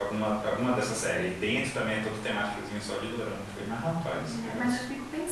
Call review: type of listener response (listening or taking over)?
taking over